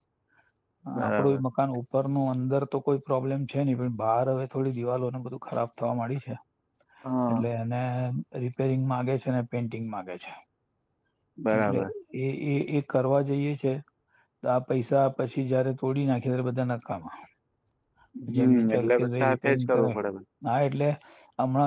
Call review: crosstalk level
present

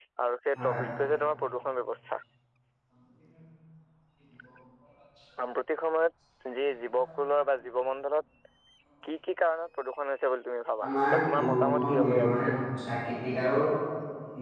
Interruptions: present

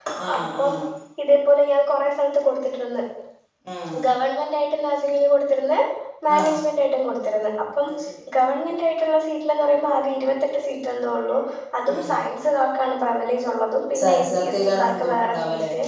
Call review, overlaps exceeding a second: present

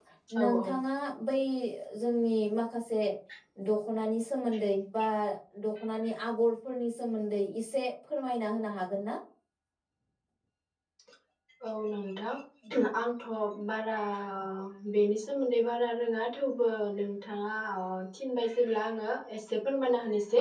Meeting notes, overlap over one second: none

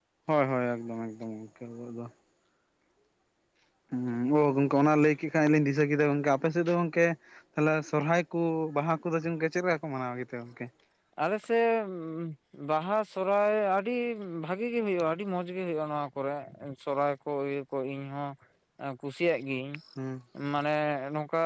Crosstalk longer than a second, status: none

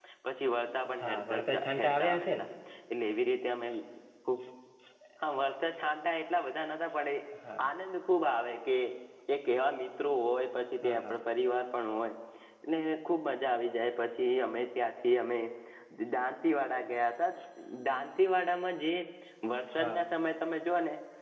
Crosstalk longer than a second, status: present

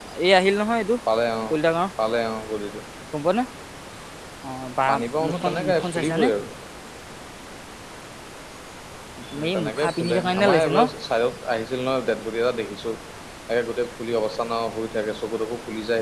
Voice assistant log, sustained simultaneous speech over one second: present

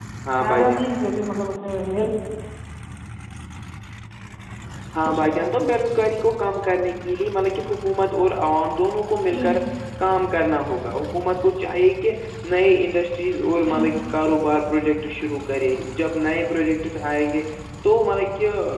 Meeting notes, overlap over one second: none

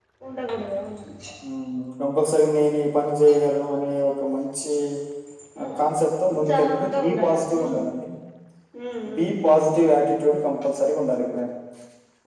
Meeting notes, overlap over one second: present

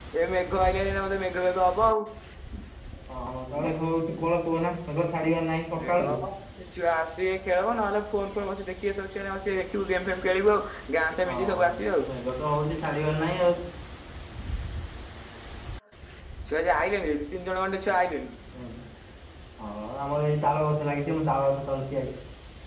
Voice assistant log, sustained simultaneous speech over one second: none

